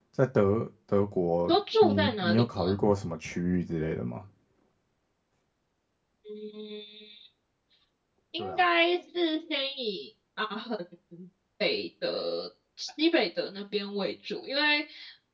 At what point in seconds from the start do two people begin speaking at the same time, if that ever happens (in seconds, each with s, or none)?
1.5 s